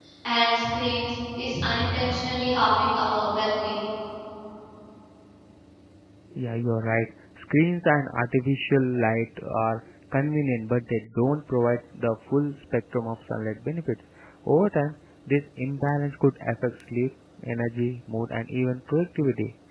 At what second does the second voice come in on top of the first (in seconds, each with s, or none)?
none